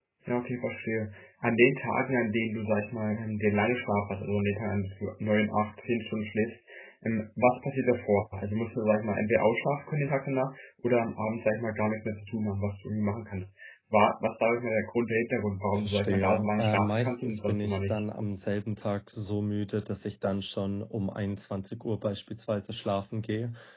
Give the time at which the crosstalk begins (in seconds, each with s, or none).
15.8 s